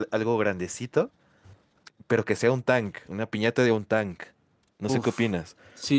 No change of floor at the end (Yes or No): No